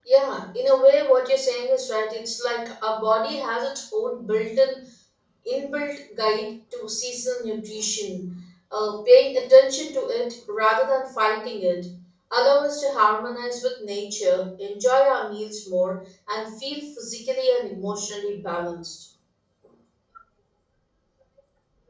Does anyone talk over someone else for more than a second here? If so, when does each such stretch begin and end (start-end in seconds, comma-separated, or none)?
none